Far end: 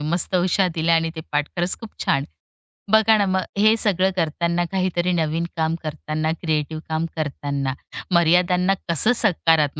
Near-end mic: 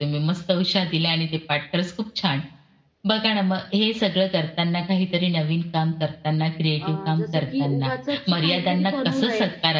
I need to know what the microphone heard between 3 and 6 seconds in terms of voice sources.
echo only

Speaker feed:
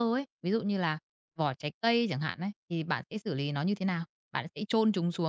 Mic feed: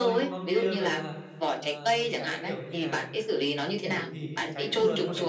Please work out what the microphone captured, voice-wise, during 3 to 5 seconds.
both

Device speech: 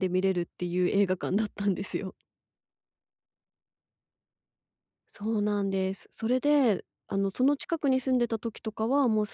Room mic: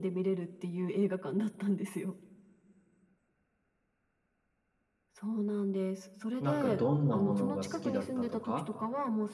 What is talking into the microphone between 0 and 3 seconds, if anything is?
echo only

